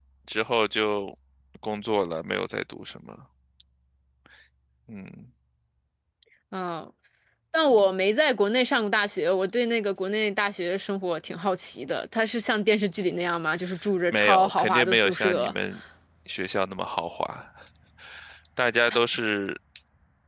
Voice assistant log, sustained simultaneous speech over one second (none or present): present